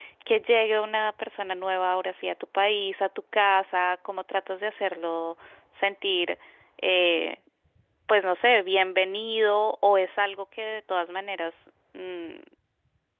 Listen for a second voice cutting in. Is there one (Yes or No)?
No